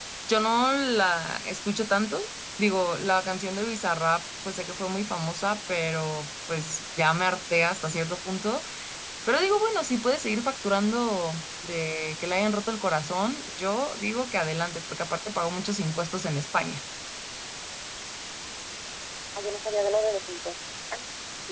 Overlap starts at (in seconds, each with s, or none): none